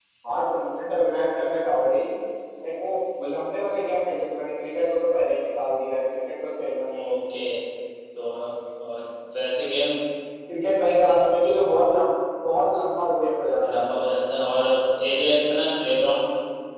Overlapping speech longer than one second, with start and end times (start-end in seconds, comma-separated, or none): none